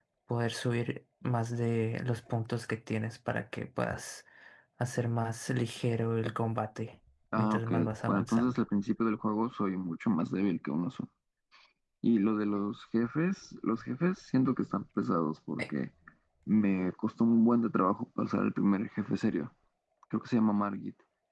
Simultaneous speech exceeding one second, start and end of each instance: 7.4-8.6

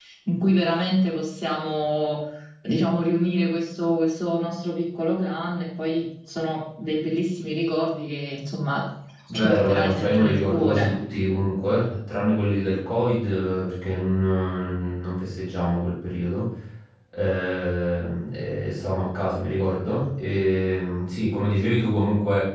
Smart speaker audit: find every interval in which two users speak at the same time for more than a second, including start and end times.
9.3-11.0

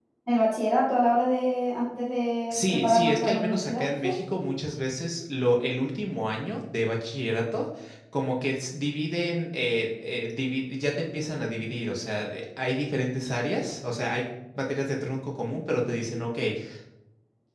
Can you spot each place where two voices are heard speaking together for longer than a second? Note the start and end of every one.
2.5-4.2

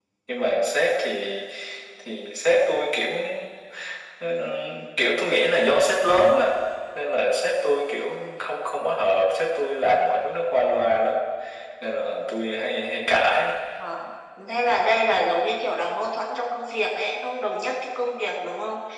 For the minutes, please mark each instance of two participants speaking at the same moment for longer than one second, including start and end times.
none

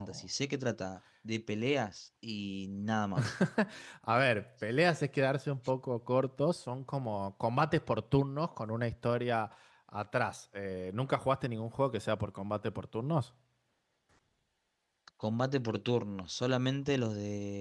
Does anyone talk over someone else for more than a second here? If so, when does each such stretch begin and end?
none

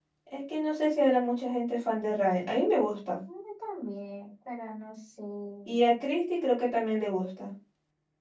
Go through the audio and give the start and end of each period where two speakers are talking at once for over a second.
none

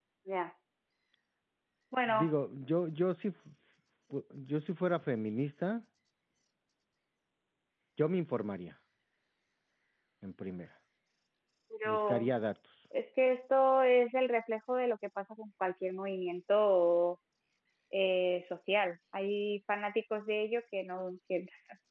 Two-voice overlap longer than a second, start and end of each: none

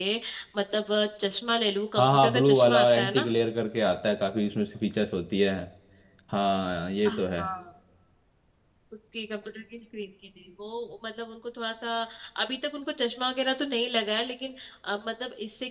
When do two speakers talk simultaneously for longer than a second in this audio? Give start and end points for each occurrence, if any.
2.0-3.3

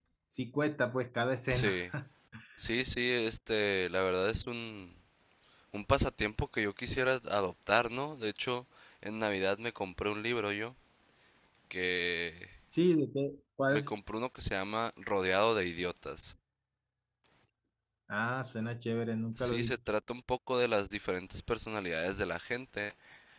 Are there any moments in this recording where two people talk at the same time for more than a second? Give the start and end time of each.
none

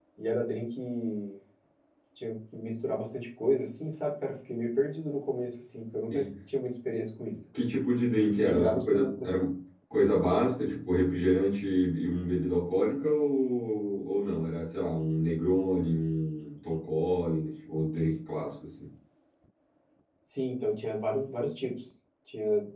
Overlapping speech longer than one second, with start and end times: 8.2-9.4

